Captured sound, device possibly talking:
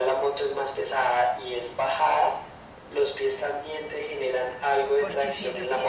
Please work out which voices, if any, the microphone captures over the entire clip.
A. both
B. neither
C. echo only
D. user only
A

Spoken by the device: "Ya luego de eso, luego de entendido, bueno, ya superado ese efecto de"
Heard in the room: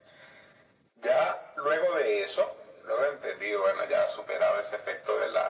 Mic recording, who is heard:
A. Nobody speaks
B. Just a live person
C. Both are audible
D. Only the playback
D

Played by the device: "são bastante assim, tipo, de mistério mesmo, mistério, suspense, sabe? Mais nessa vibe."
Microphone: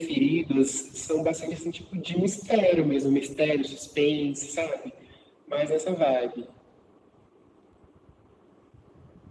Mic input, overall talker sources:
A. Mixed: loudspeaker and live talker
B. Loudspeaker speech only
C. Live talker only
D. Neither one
B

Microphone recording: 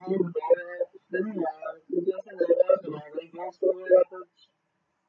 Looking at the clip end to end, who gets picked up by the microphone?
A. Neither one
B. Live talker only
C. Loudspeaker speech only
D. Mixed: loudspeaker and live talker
C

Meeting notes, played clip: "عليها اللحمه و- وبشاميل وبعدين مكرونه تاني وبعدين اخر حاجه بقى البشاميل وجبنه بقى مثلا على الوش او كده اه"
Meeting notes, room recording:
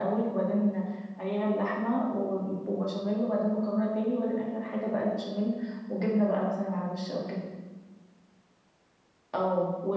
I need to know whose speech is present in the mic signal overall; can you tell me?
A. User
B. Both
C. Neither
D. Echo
D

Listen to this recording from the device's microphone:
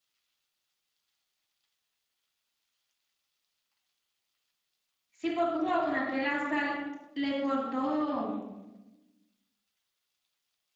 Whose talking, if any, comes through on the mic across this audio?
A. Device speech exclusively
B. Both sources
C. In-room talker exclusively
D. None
C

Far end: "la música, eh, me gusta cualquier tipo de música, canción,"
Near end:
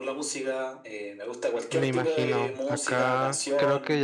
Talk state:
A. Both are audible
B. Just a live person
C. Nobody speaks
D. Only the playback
A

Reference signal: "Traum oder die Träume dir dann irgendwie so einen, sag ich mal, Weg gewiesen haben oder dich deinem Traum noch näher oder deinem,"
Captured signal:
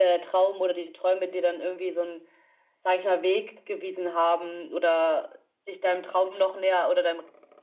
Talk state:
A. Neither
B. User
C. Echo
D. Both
C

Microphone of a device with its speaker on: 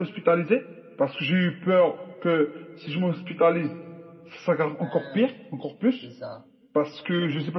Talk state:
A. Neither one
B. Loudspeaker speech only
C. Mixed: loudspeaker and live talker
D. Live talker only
C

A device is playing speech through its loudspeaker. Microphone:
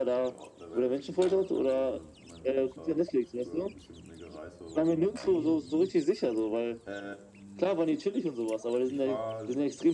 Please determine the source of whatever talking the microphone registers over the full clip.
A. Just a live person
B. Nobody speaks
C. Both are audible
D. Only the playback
C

